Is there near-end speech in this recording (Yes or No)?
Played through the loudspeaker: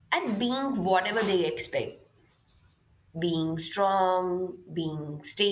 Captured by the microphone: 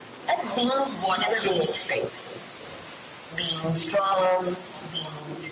No